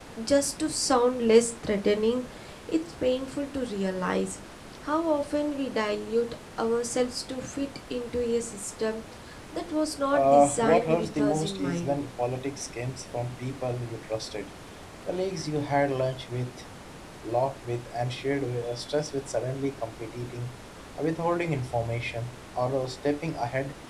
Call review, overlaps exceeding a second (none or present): present